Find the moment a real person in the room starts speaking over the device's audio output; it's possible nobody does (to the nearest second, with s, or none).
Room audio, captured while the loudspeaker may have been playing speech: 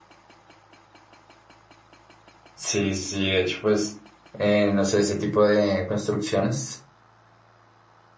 3 s